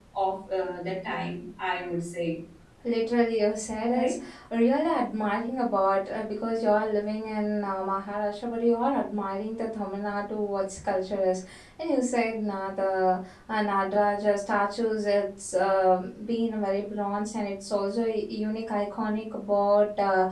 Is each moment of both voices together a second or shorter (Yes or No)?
Yes